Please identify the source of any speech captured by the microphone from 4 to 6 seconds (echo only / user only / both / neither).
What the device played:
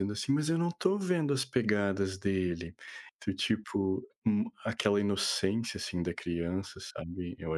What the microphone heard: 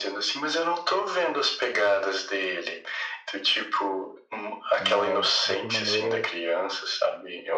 both